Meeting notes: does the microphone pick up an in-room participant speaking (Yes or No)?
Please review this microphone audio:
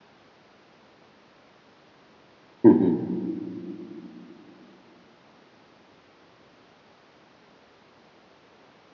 Yes